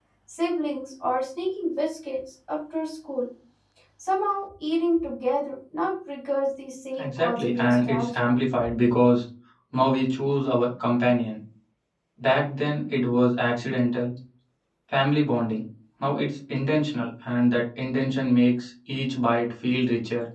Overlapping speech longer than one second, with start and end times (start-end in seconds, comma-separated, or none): 7.0-8.3